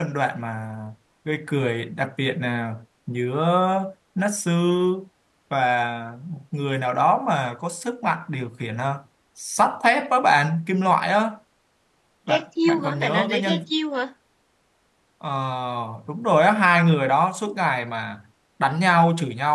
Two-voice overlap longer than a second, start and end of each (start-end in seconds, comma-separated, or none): 12.3-13.6